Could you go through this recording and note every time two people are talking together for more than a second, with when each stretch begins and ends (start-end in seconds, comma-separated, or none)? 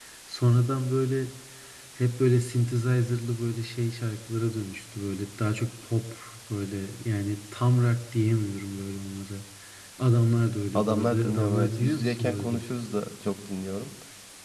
10.8-12.6